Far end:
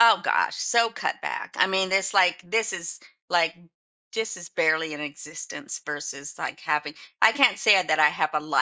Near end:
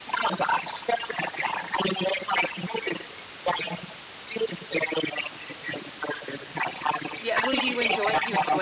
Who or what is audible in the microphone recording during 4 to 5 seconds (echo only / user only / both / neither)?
echo only